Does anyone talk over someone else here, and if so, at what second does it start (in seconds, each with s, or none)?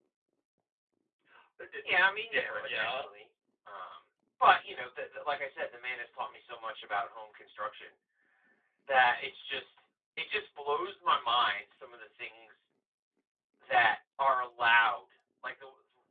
1.8 s